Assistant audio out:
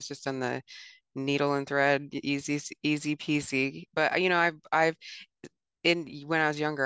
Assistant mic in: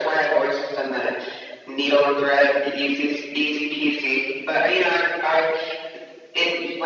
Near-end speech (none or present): none